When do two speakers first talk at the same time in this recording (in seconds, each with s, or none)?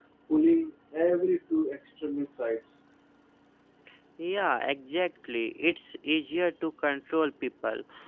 none